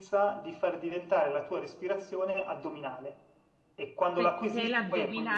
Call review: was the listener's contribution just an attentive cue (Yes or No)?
No